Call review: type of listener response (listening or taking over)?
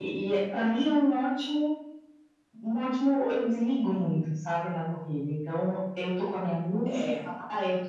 listening